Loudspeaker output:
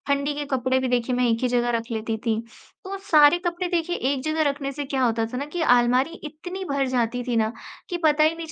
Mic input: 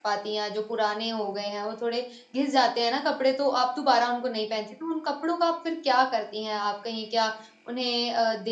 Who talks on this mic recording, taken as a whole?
user only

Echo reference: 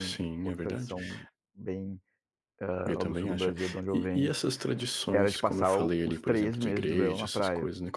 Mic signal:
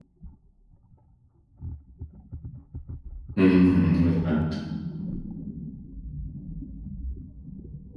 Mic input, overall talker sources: user only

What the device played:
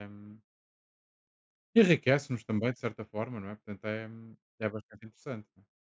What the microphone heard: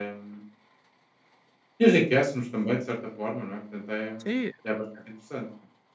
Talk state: both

